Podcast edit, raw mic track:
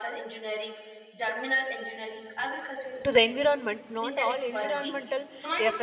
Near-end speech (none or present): present